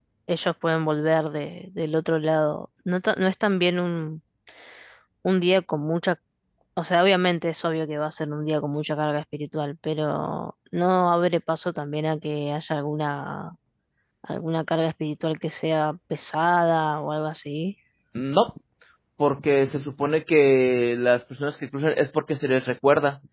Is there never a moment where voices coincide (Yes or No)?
Yes